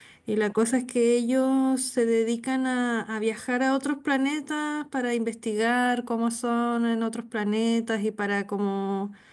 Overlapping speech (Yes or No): No